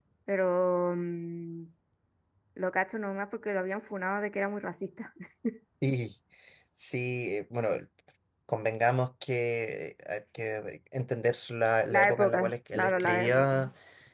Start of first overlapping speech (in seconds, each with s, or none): 11.9 s